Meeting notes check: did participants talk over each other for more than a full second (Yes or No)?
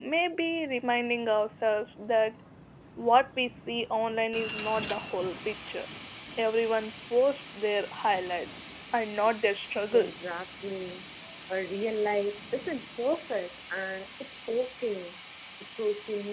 No